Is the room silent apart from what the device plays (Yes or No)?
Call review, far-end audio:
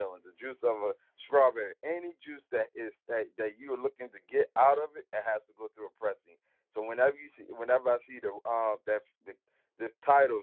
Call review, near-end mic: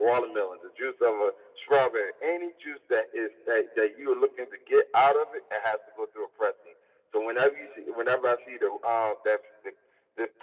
Yes